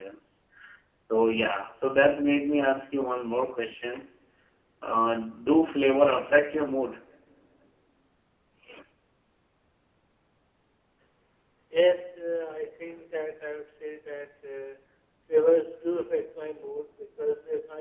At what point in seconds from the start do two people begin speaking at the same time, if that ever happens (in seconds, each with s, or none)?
none